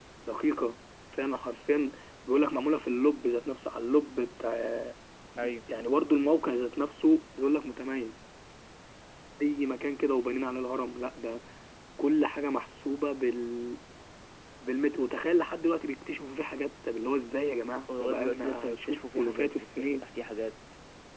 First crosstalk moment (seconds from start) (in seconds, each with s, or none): 17.9 s